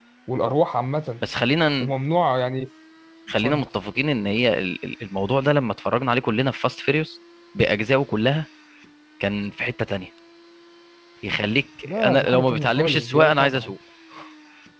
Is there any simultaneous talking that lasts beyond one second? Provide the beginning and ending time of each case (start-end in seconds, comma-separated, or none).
11.8-13.7